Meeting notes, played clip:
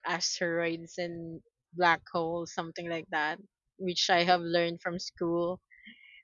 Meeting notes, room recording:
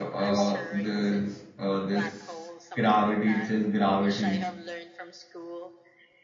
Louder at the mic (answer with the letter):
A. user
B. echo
A